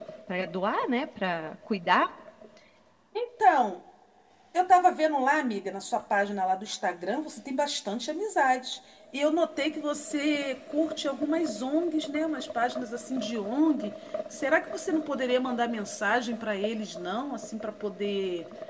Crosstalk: none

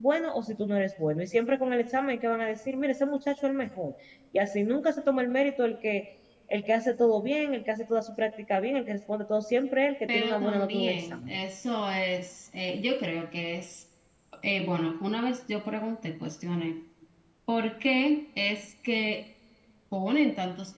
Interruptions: present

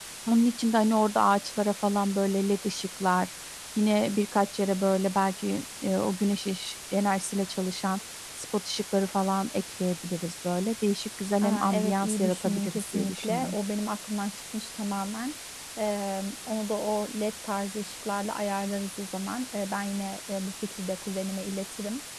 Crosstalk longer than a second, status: present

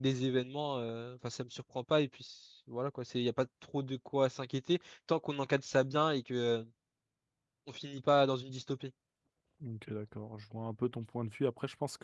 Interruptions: none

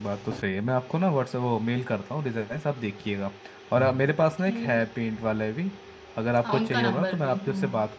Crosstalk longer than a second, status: present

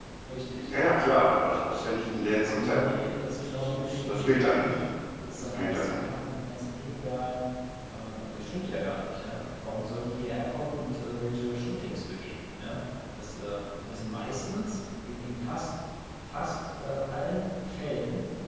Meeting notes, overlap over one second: present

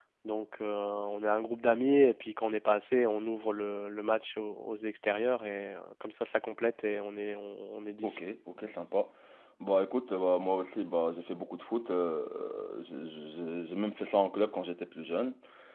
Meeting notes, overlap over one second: none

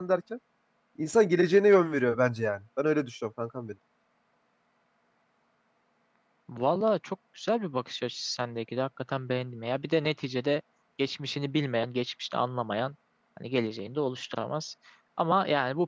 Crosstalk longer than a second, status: none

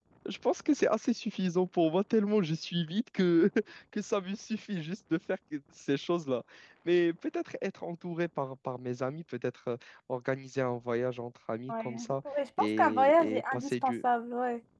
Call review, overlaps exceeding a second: present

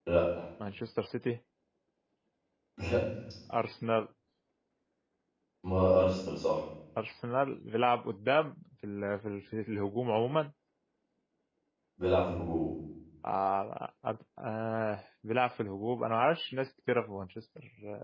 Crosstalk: none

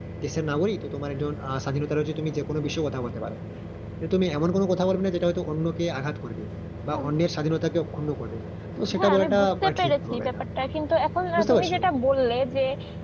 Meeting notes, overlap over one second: present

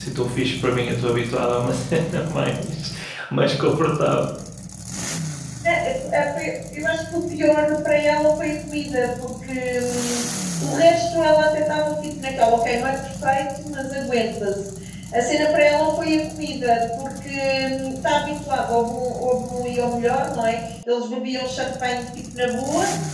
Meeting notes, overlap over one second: none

